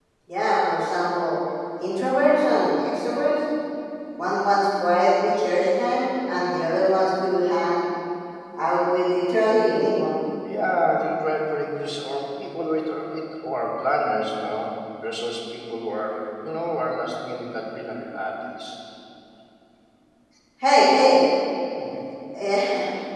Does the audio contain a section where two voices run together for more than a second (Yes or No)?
No